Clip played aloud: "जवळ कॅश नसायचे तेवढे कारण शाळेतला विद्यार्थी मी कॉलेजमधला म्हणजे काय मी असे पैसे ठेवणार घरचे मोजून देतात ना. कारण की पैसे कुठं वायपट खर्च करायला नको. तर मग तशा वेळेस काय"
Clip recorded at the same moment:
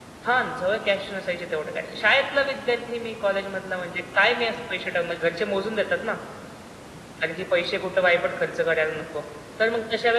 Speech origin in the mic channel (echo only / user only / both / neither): echo only